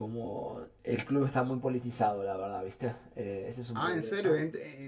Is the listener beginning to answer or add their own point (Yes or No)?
Yes